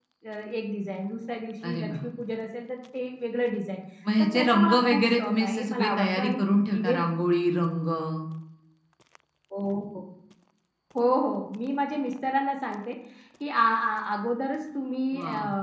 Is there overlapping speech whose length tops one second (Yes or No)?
Yes